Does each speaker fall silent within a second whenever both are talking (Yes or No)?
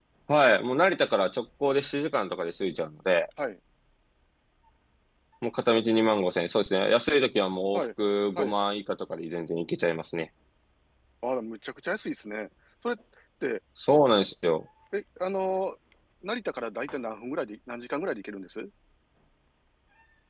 Yes